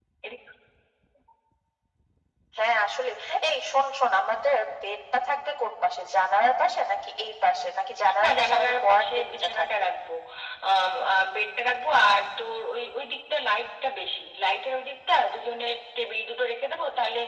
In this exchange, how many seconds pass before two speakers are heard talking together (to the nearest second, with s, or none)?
8 s